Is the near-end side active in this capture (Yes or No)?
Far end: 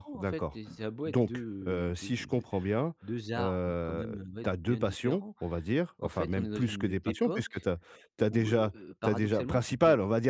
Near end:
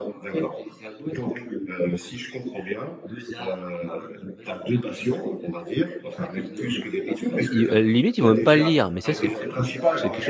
Yes